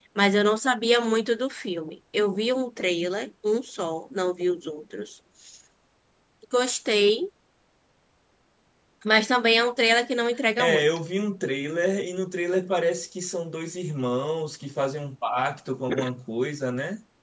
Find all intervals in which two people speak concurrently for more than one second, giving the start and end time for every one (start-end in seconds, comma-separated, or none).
none